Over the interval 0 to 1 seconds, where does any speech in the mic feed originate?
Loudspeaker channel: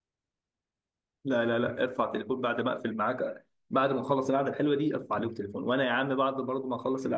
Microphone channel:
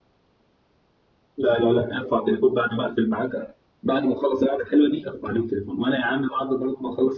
neither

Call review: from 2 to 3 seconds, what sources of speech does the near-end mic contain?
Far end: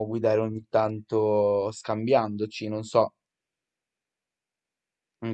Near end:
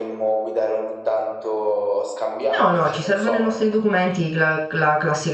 both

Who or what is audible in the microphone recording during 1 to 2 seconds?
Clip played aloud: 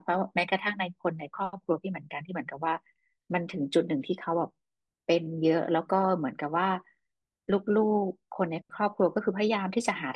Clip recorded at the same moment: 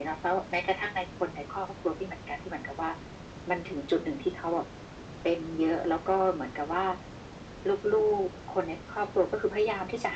echo only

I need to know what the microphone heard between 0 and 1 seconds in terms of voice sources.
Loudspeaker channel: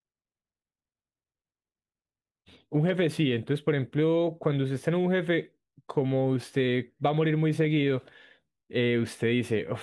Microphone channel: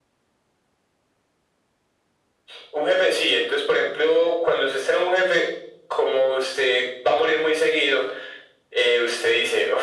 neither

